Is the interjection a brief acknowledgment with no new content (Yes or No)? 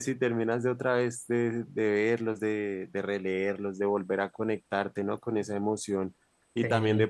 Yes